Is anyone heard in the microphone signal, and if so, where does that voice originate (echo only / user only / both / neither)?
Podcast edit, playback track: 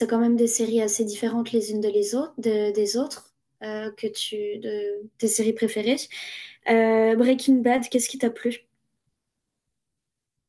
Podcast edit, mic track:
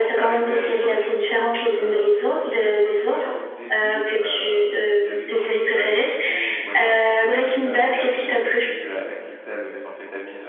both